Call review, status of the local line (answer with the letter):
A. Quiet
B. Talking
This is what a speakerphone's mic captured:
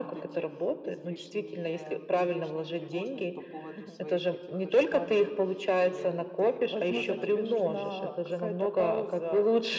B